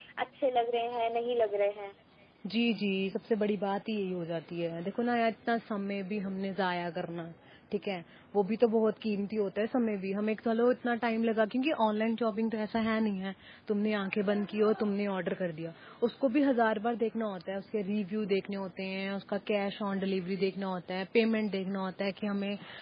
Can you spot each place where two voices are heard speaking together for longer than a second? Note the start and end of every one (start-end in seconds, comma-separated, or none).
none